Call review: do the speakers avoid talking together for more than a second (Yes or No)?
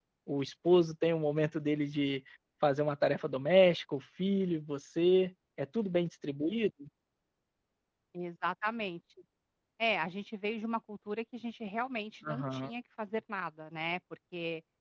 Yes